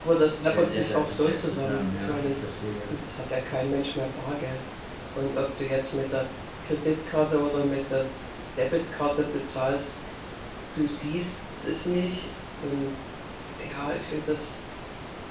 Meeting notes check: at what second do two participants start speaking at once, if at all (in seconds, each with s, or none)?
0.5 s